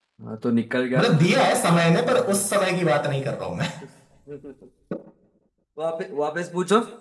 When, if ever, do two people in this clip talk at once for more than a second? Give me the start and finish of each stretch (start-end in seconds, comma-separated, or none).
1.0-2.5